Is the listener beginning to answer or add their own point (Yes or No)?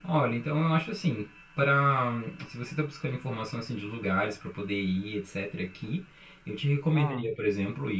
No